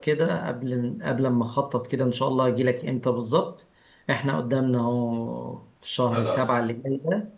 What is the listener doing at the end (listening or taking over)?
listening